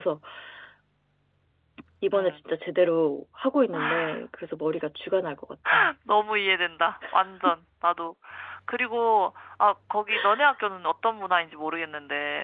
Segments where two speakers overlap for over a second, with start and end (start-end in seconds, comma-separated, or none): none